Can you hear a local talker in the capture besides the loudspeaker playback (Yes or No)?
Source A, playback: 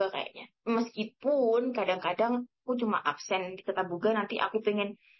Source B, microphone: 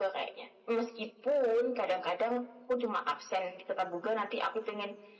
No